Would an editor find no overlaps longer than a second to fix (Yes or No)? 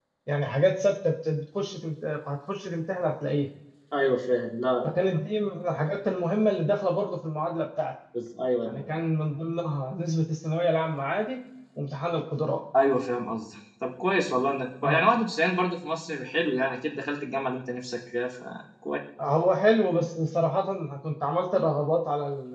Yes